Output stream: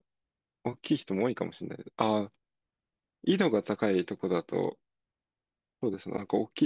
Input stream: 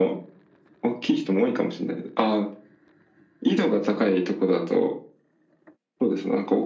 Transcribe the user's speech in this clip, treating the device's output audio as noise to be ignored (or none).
none